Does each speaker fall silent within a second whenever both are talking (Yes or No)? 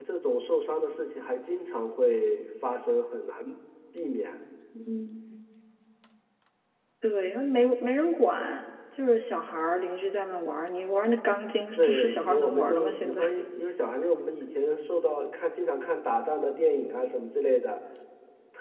No